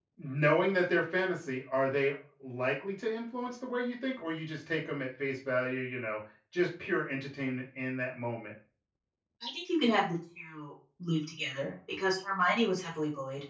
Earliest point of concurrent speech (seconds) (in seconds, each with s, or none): none